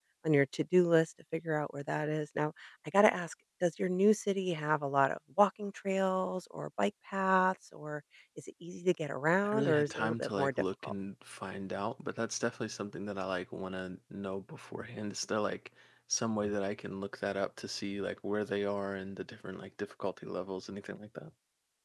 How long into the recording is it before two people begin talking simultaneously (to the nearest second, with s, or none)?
9 s